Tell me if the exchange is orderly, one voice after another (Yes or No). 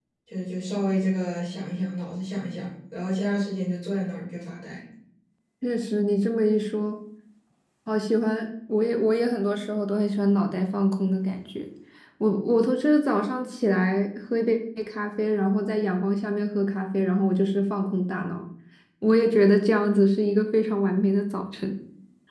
Yes